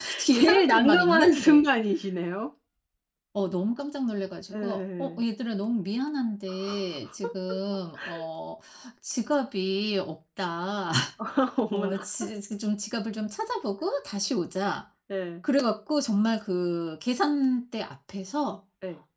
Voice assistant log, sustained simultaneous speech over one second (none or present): present